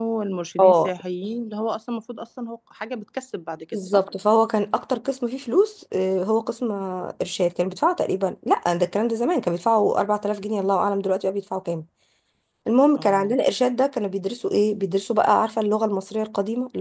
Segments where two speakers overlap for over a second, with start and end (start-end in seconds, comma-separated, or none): none